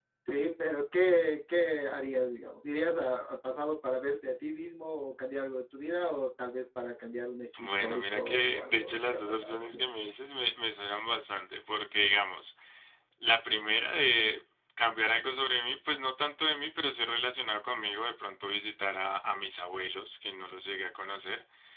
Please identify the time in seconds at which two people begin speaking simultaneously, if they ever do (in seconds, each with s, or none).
7.5 s